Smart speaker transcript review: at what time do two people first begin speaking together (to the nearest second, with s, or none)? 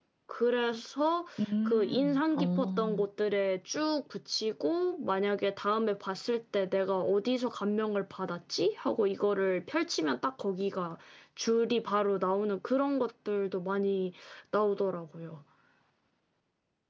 2 s